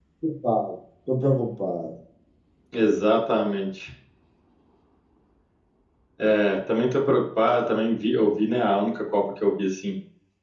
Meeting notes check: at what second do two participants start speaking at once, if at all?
none

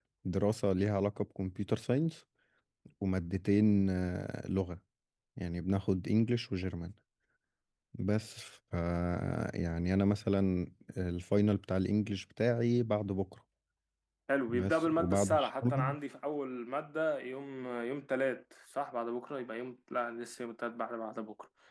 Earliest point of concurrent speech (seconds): 14.5 s

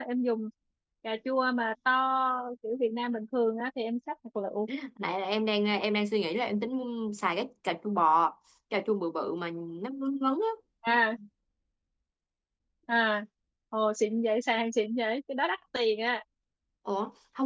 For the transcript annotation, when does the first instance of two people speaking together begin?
none

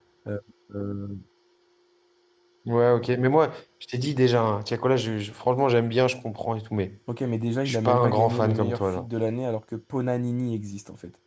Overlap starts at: 7.7 s

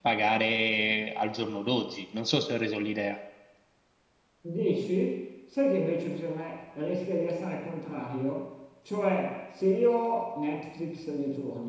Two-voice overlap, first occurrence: none

